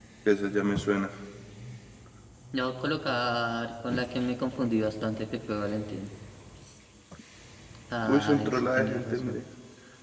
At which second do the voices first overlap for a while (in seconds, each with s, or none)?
8.1 s